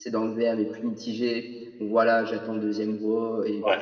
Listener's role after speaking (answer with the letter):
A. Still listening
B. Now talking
A